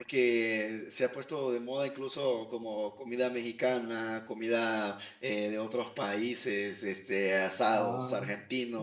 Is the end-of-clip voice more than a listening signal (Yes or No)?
No